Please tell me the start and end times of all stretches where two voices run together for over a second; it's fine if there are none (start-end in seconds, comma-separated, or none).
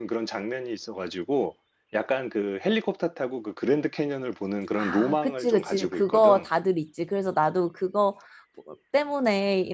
4.8-6.5